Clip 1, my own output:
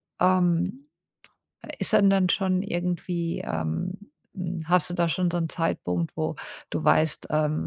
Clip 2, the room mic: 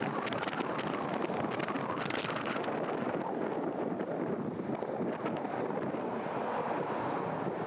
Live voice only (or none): none